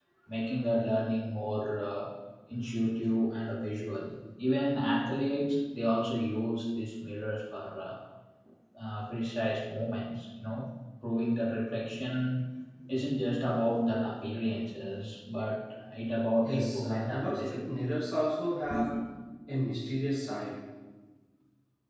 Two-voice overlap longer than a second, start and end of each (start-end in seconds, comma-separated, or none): 16.4-17.8